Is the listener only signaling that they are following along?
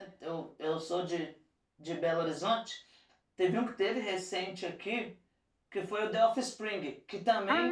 Yes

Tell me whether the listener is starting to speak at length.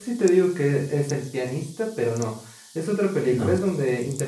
No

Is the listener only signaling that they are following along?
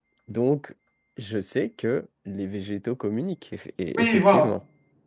No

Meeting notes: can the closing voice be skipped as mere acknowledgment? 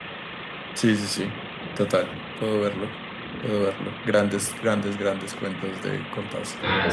No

